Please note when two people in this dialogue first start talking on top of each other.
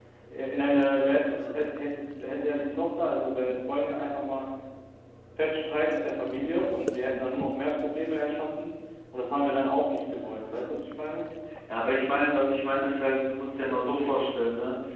none

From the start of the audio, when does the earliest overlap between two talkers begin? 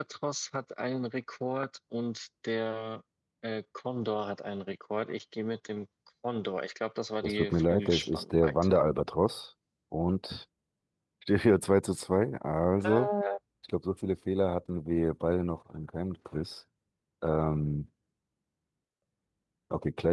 7.2 s

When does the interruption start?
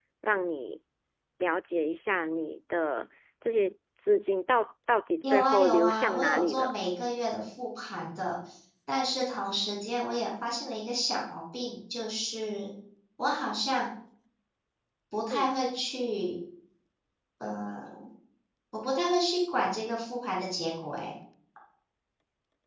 5.2 s

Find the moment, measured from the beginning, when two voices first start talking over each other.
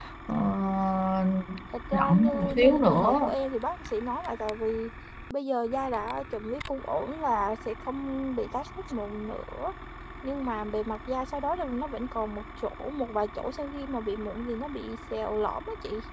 1.9 s

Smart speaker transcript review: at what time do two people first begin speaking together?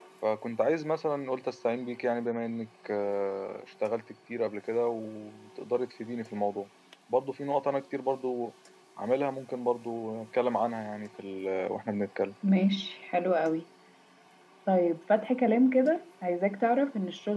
none

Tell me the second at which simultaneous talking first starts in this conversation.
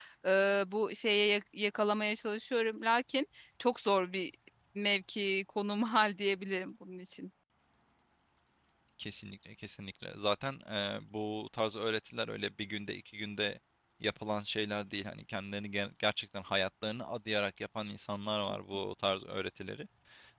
none

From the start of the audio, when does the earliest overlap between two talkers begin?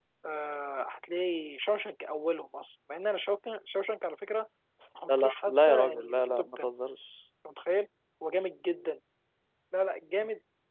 5.1 s

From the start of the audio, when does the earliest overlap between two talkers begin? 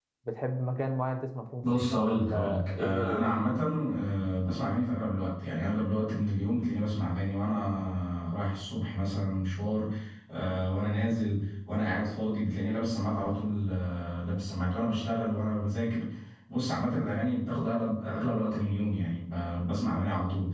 1.6 s

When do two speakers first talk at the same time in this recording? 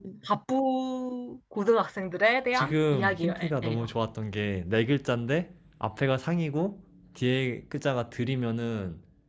2.5 s

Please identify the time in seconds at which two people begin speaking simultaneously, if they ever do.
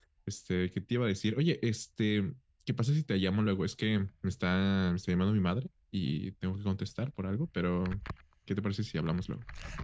none

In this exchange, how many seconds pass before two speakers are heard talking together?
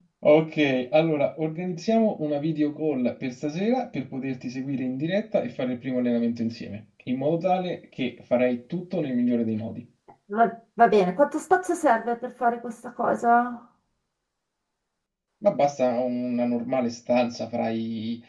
none

